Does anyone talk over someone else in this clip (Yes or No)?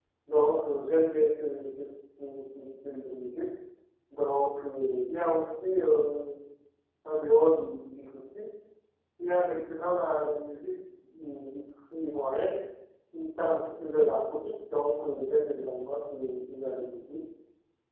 No